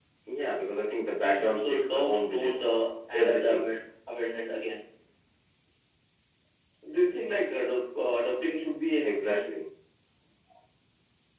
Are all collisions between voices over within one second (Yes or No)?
No